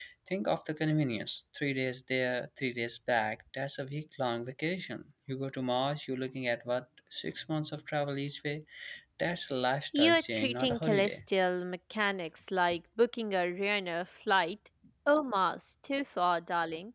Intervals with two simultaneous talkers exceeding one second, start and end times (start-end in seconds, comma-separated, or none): 9.9-11.2